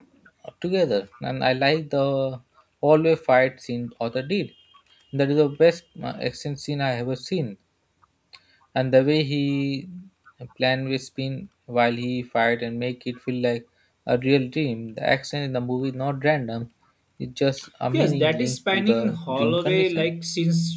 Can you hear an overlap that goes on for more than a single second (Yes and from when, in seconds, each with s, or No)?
Yes, from 17.9 s